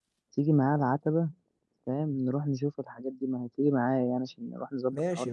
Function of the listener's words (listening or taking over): taking over